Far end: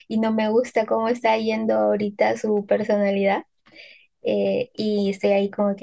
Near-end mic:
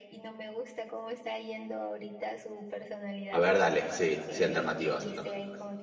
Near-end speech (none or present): present